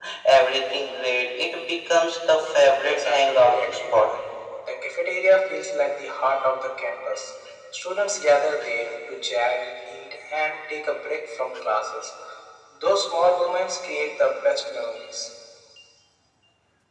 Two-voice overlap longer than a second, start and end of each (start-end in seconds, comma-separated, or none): 2.8-4.1